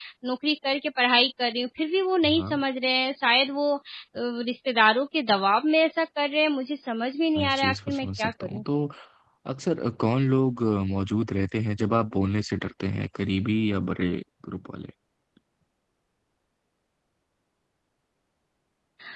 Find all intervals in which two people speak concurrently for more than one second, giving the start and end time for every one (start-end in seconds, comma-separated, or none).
7.4-8.6